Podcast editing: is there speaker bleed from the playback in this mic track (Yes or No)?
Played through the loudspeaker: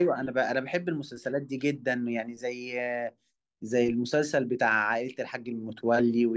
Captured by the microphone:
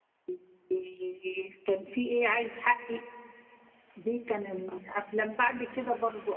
No